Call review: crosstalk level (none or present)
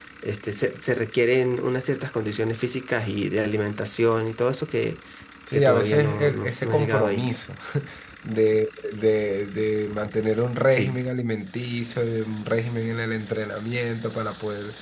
present